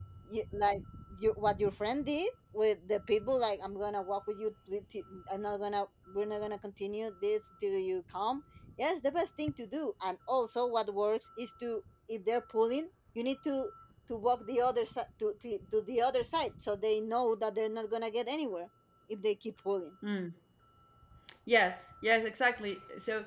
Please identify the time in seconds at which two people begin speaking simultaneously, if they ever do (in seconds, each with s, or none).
none